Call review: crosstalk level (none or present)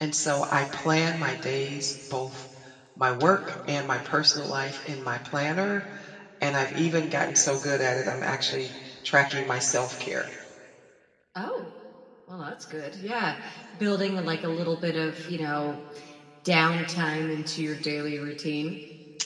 none